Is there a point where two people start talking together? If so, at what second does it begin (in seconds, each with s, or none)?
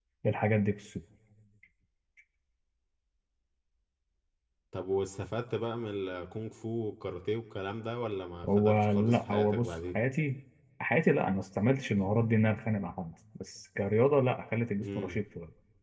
8.6 s